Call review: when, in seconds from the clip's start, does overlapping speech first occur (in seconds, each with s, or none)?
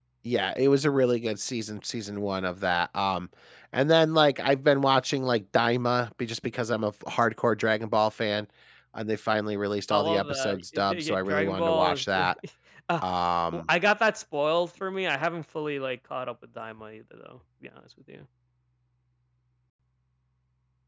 9.9 s